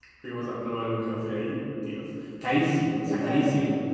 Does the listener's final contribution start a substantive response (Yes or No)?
No